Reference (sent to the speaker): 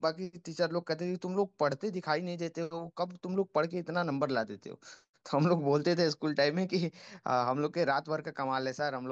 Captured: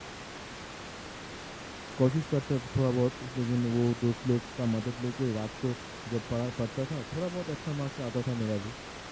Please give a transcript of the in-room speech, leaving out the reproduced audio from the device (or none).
कोशिश करता था थोड़ा बहुत लेकिन वो दोस्त लोग का मदद लेके रात को जब पढ़ा पढ़ता था थोड़ा बहुत अच्छा मार्क्स आता था मेरा भी